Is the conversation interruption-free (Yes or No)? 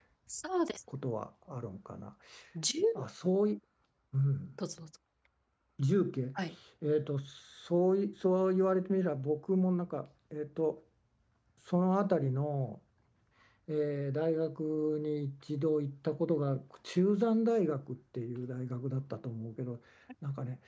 Yes